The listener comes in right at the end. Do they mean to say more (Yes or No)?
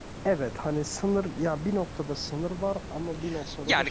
Yes